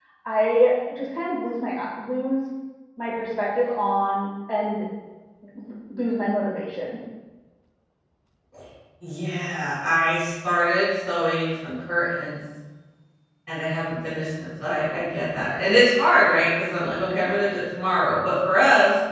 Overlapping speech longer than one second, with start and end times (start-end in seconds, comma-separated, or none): none